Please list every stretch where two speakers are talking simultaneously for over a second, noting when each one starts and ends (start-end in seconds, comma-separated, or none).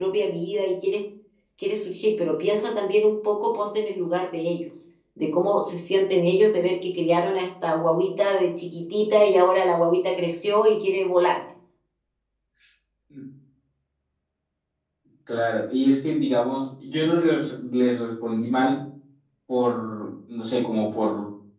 none